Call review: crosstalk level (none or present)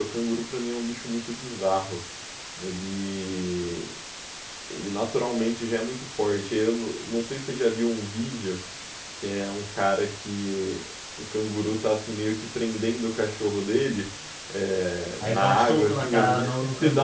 present